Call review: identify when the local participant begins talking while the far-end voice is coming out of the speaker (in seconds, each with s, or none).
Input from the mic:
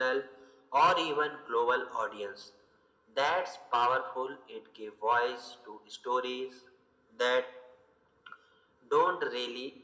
none